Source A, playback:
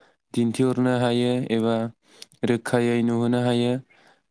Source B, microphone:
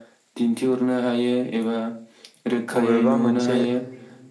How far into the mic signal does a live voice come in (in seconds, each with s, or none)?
2.8 s